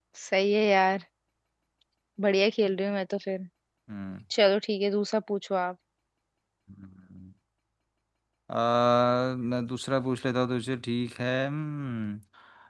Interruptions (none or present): none